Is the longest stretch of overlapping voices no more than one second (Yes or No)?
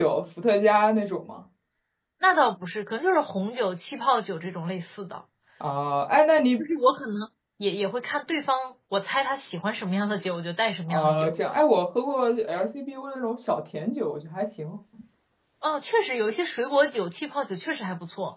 Yes